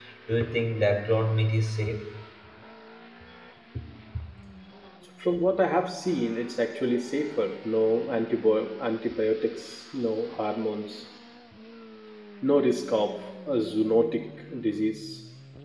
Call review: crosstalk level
none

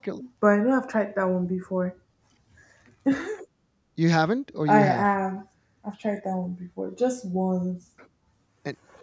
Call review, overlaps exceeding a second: none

